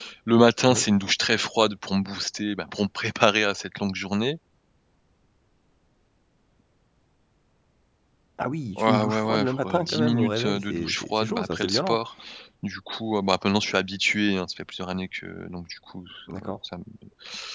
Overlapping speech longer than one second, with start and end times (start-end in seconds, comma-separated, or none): 8.8-12.0